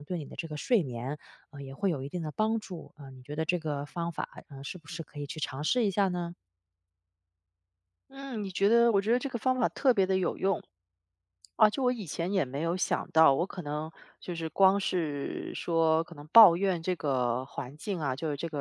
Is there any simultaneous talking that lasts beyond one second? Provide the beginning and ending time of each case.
none

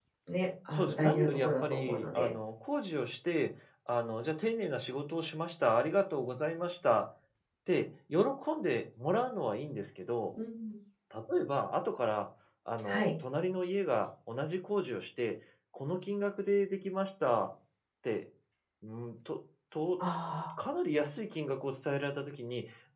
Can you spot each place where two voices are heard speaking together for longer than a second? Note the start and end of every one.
0.7-2.3

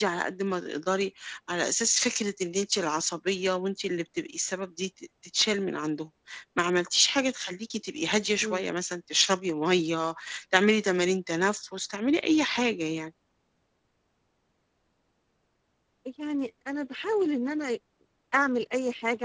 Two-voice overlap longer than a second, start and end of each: none

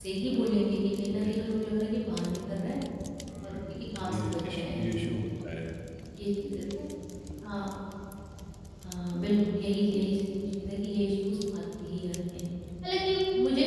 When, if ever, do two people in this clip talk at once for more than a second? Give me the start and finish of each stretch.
3.4-4.8

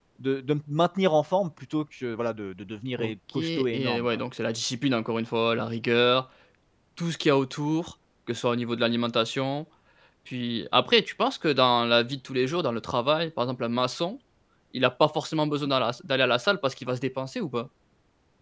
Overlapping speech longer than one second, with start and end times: 3.0-4.2

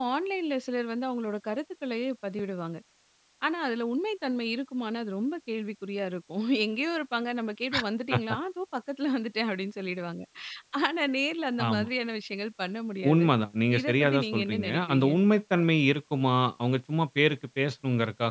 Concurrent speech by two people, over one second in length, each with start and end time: 13.8-15.1

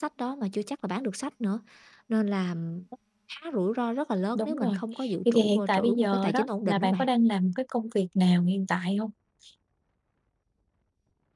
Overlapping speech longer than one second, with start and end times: 5.3-7.0

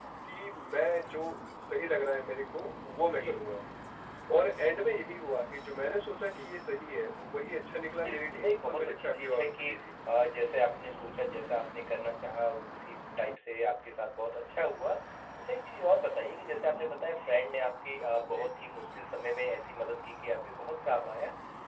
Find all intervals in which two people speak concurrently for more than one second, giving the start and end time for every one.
8.0-9.7

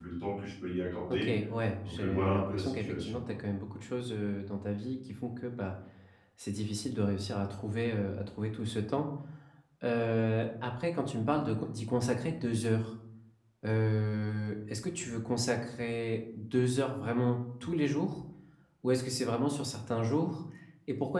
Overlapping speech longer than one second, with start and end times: 1.8-3.2

